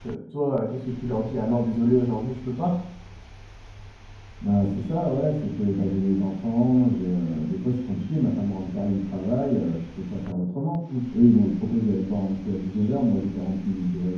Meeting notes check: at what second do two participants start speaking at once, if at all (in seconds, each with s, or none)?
none